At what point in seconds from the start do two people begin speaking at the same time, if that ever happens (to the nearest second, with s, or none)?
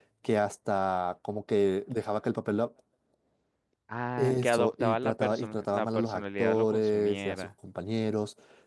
4 s